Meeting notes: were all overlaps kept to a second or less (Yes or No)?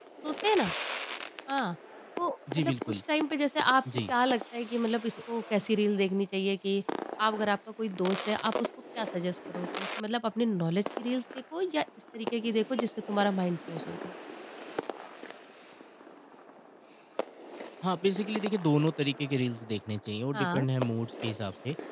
Yes